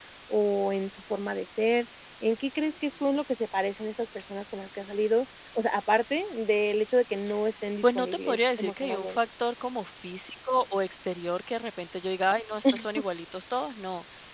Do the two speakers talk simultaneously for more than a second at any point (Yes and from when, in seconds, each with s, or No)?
Yes, from 7.8 s